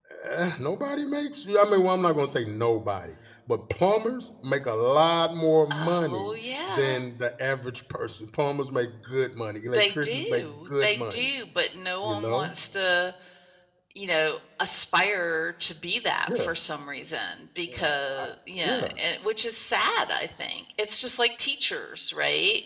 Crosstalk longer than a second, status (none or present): present